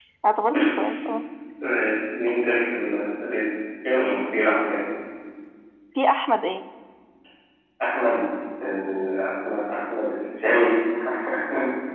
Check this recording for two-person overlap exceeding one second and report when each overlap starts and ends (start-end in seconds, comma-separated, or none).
none